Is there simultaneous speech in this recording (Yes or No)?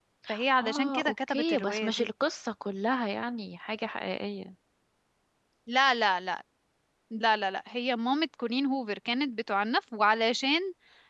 Yes